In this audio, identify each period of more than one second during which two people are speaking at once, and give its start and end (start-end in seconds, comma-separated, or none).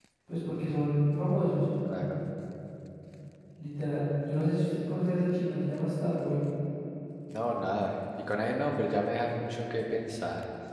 none